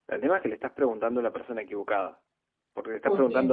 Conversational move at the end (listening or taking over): listening